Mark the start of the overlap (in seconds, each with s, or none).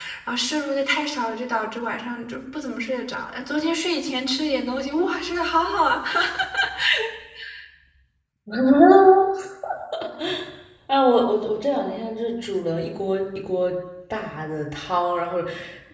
none